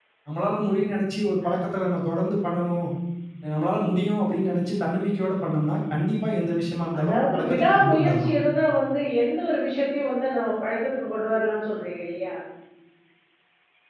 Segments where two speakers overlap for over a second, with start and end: 7.0-8.3

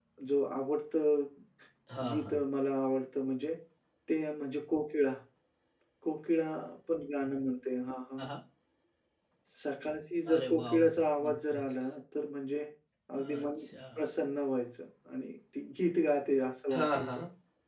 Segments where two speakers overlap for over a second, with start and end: 10.3-11.6

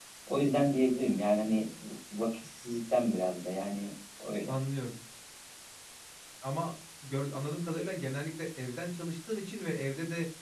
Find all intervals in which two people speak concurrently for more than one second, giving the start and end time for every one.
none

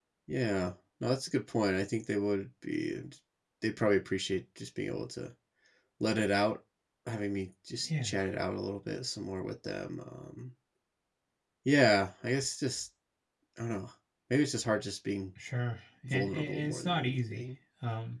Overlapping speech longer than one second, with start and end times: 16.1-17.4

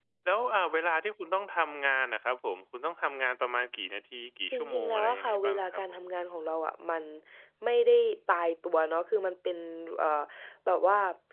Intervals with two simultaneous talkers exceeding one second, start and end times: 4.5-6.0

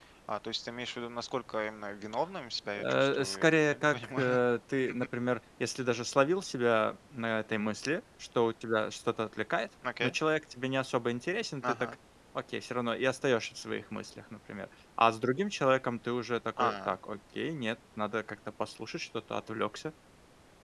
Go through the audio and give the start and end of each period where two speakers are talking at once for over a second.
2.8-4.4

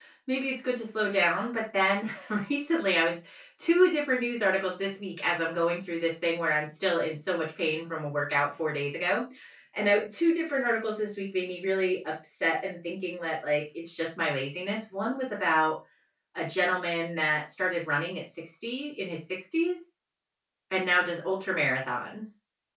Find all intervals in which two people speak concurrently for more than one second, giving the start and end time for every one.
none

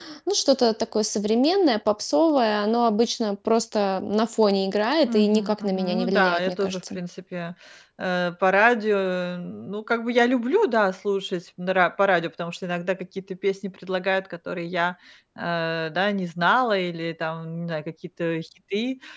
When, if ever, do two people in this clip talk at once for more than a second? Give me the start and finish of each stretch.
5.1-7.0

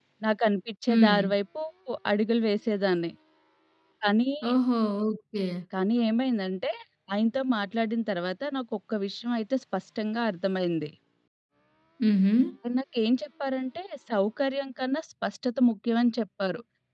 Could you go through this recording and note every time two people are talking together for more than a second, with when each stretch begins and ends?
none

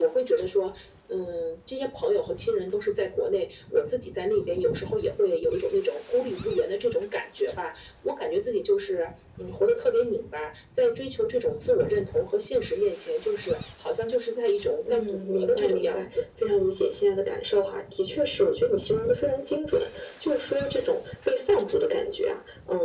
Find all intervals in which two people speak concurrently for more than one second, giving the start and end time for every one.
14.8-16.2

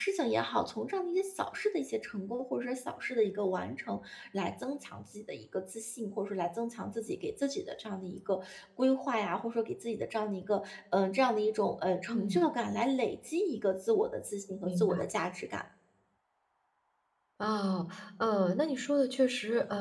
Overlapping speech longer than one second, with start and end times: none

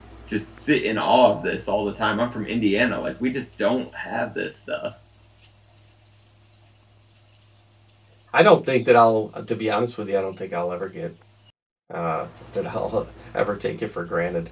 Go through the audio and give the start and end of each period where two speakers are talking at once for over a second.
none

